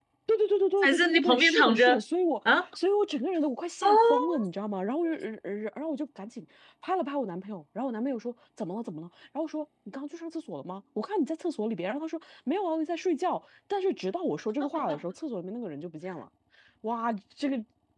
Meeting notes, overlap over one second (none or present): present